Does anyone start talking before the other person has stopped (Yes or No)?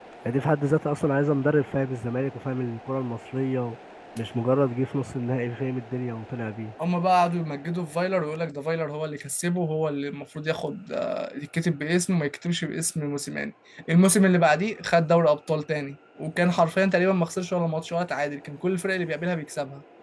No